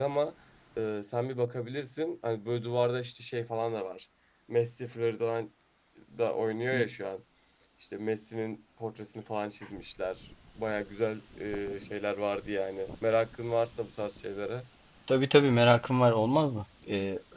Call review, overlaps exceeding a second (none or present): none